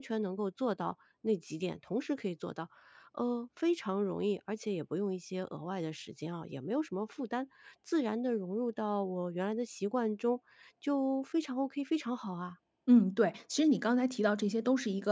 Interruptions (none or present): none